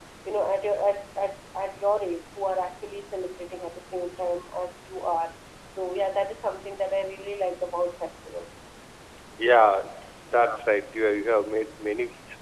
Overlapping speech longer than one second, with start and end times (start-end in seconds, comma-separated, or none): none